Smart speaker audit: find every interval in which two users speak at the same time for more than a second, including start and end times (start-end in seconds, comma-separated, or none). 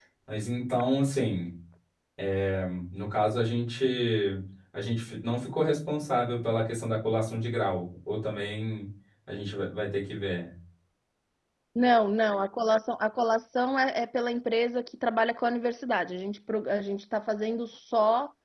none